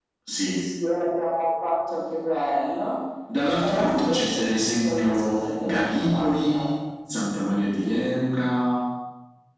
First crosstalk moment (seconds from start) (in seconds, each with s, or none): 3.3 s